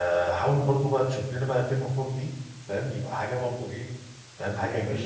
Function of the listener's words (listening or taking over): taking over